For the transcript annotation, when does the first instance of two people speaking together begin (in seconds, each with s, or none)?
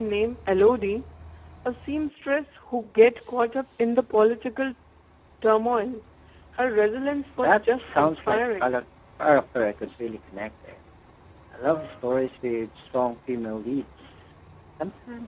7.4 s